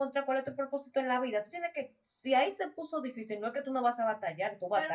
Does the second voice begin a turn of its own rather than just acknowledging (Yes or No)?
Yes